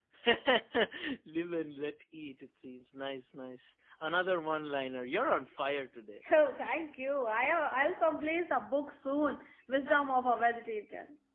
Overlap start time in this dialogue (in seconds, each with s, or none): none